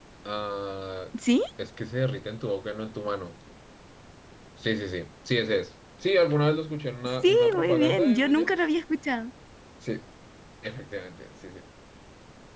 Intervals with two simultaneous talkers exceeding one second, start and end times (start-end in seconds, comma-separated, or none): 7.2-8.5